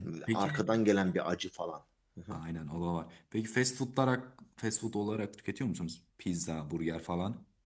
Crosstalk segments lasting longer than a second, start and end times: none

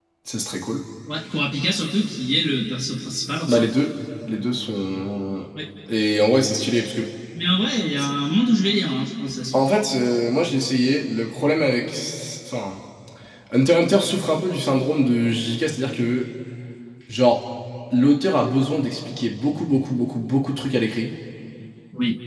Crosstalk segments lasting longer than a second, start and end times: none

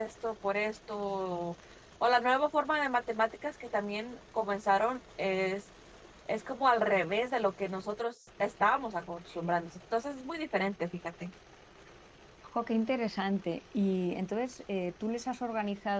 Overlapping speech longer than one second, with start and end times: none

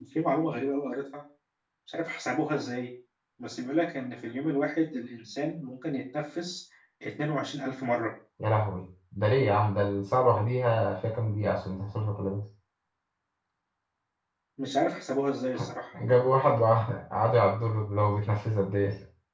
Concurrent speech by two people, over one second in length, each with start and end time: none

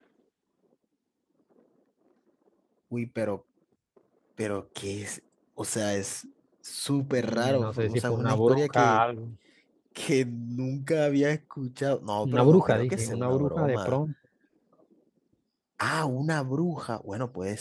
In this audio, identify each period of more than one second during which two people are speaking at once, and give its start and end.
7.2-9.0, 12.2-14.0

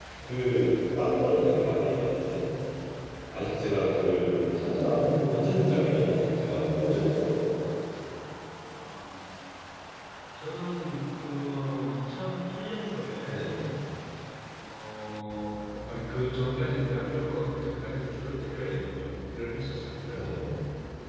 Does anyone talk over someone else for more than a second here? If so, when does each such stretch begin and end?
none

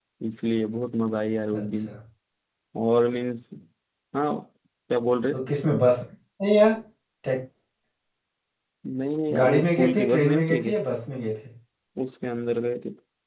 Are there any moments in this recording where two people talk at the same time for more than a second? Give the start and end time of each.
9.4-10.7

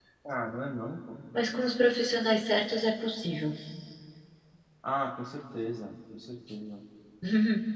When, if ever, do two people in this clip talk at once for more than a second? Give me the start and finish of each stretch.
none

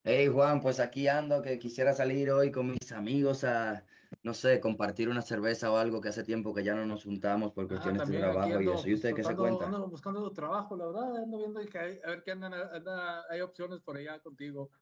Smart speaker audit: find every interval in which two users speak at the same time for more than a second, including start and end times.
7.7-9.7

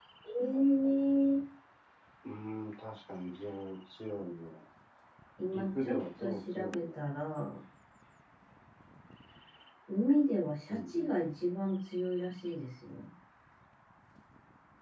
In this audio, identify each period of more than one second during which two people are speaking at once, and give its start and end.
5.5-6.9

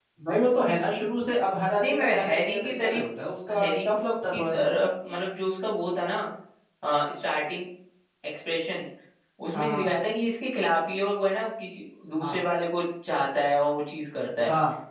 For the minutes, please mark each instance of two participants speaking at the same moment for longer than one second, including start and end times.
1.8-3.1

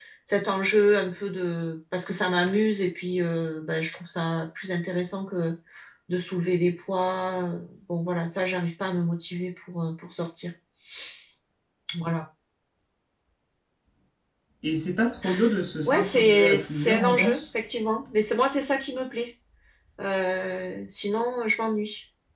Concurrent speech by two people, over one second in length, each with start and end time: 15.9-17.4

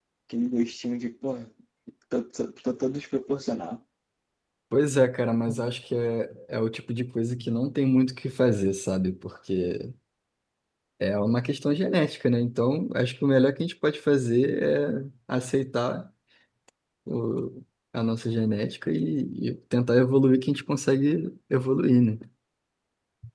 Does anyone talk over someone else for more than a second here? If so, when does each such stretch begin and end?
none

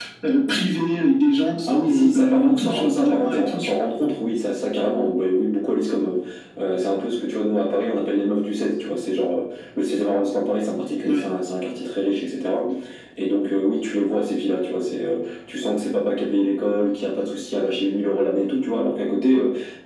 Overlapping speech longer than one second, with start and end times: 1.7-3.7

